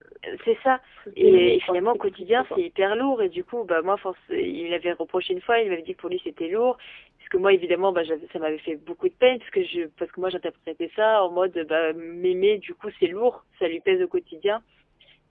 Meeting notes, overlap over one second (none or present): present